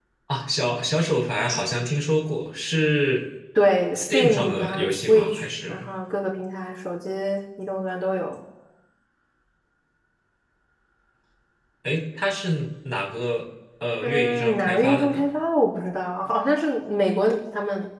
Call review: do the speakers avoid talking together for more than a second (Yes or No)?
No